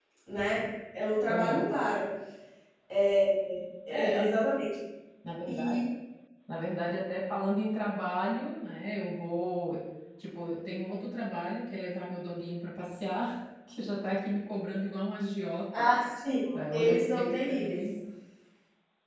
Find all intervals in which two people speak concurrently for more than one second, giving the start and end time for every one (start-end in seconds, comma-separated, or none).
16.5-17.8